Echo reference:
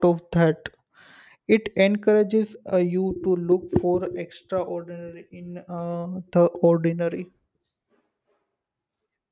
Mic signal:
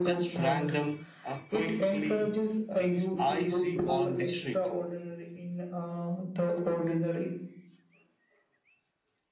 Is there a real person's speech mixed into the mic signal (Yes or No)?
Yes